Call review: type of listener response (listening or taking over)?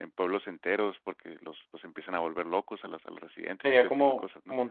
taking over